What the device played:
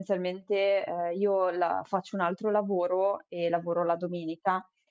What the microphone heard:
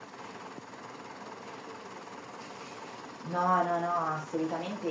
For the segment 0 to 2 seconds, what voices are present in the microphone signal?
neither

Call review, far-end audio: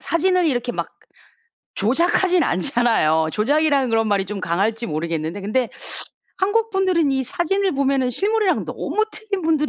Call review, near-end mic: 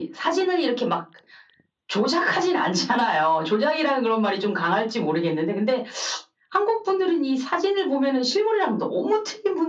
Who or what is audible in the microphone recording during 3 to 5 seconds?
echo only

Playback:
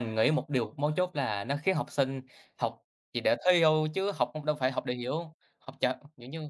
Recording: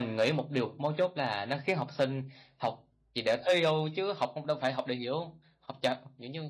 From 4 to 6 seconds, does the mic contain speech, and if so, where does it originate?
echo only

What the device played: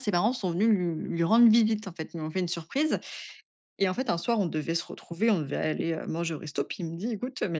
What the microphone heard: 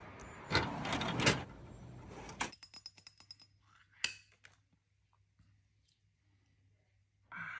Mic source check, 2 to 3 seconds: neither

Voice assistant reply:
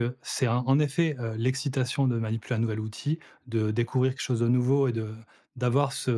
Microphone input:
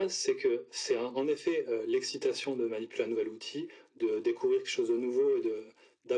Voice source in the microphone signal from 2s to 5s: echo only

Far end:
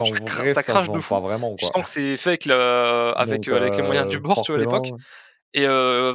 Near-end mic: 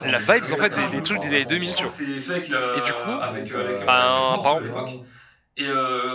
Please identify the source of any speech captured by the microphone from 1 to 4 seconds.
both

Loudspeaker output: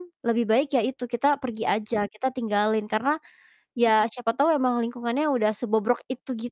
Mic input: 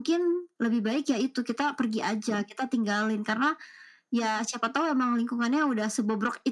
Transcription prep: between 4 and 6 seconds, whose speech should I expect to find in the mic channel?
echo only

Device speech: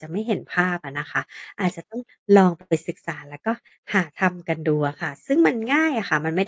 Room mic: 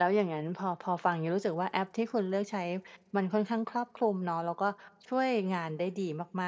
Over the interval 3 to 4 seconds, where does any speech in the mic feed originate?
user only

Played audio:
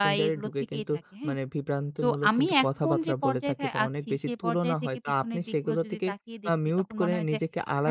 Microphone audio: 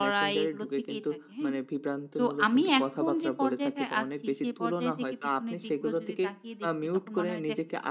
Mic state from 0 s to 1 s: echo only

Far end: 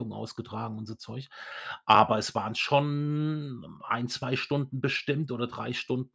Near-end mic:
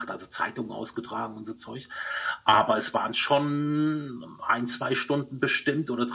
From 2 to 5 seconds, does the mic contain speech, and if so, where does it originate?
echo only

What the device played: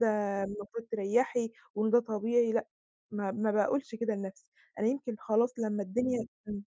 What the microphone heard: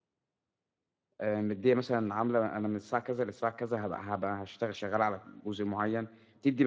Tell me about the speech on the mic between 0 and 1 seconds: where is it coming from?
neither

